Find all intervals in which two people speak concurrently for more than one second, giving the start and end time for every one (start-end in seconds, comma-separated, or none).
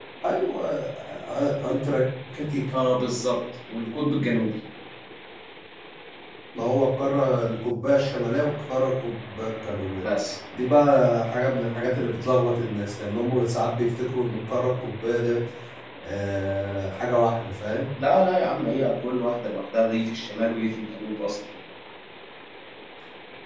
none